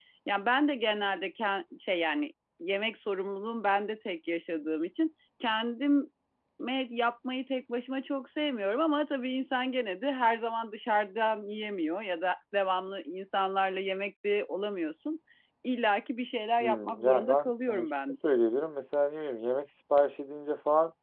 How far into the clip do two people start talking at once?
16.6 s

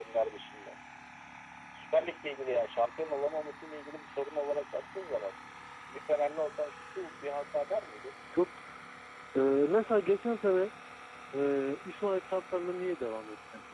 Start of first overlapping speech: none

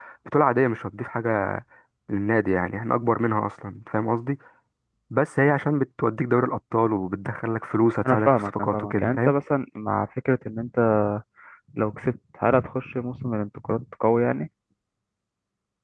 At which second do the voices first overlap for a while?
8.1 s

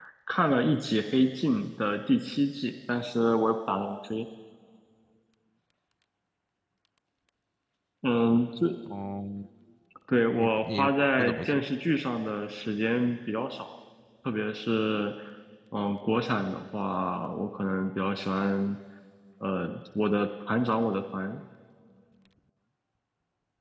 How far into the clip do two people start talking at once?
10.4 s

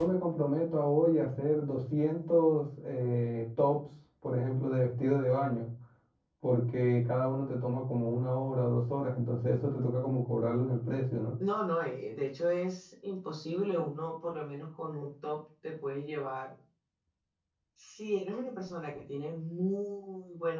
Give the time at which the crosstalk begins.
none

